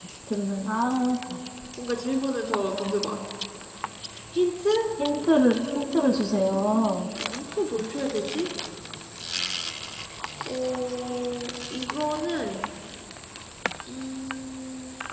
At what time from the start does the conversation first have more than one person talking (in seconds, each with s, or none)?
5.5 s